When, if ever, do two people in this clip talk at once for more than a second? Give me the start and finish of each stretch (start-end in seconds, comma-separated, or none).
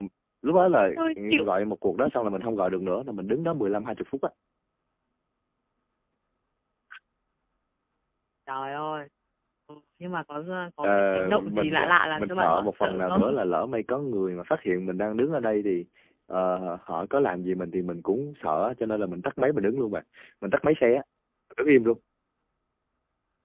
11.1-13.2